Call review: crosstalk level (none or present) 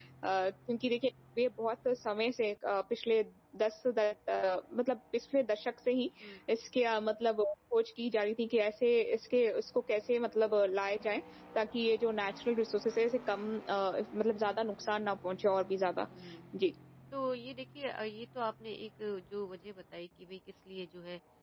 none